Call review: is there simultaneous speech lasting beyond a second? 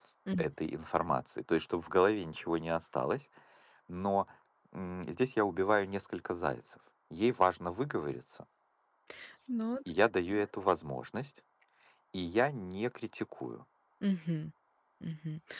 No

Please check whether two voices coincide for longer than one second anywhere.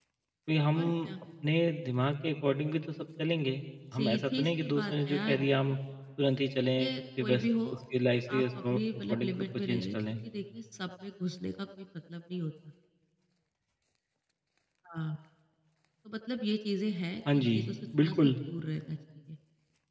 Yes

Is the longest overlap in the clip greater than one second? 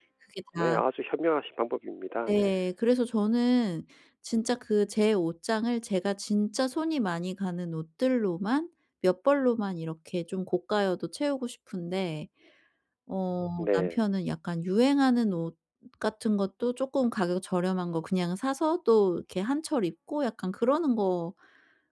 No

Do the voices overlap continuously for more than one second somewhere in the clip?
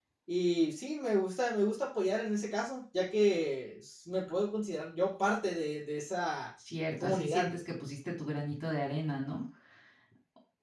No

